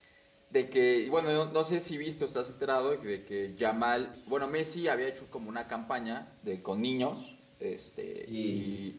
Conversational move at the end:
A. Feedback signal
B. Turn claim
A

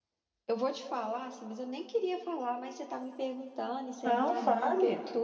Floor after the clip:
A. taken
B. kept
B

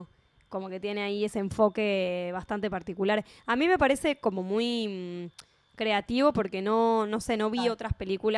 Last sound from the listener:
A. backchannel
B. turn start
A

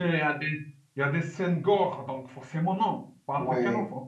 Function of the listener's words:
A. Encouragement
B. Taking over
B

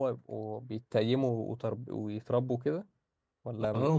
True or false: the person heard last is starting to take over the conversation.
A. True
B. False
A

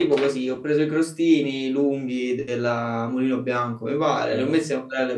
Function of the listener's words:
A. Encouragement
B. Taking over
A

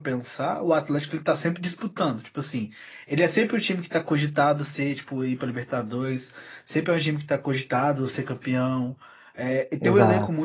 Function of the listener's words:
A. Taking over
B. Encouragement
B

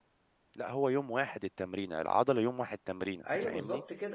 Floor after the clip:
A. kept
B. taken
B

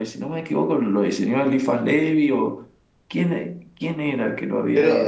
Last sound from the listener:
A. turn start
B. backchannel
A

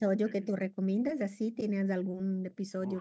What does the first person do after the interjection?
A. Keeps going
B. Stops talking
B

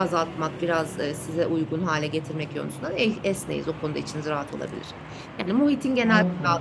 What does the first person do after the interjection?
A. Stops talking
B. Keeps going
B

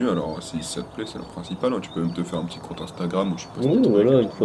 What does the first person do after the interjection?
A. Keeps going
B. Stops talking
B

